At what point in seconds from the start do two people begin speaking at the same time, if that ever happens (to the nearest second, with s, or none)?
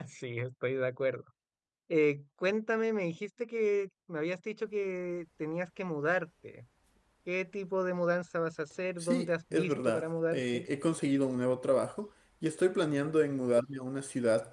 9 s